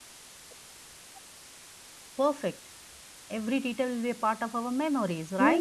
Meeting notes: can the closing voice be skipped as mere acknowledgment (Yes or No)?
No